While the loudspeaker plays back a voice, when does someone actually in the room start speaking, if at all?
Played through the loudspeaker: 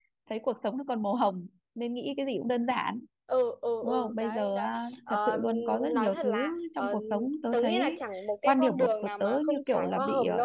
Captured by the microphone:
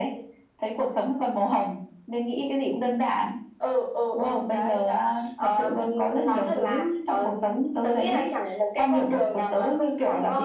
none

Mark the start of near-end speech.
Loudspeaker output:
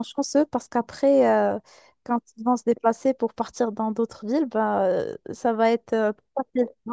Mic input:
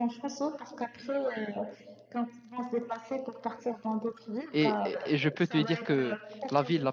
4.5 s

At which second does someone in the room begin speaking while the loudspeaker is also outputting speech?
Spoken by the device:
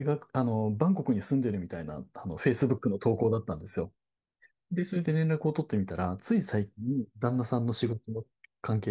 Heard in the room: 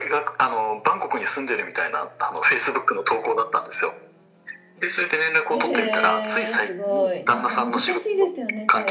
5.5 s

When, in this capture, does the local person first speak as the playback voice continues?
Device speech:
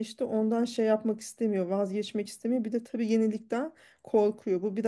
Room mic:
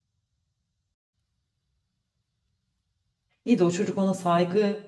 3.4 s

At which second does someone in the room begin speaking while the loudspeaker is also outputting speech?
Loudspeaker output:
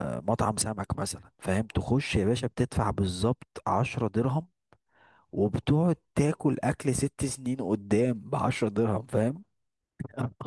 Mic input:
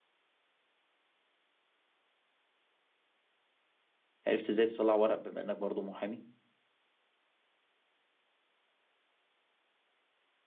4.3 s

